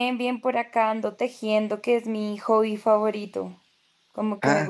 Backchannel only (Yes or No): Yes